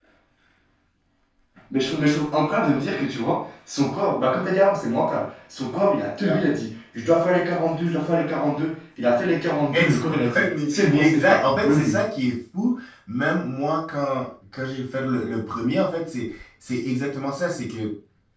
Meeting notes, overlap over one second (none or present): present